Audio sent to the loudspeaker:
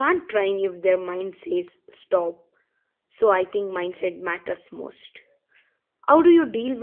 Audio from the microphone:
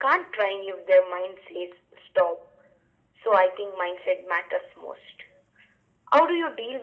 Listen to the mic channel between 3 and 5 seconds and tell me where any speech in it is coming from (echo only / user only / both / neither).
echo only